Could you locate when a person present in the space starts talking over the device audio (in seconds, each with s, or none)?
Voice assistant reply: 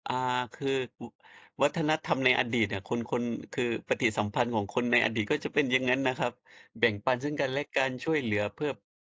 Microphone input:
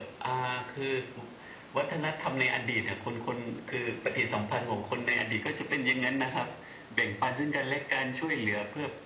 none